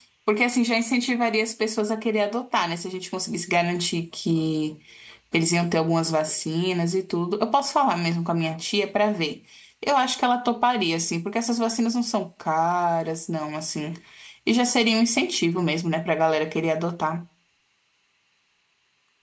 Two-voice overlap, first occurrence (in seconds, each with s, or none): none